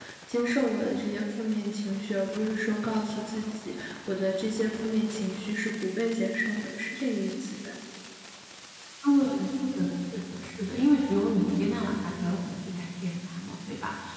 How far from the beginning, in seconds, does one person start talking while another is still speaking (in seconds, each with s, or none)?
none